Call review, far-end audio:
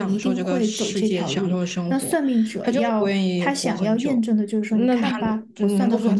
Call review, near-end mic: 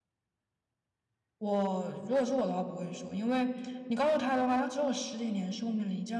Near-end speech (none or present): present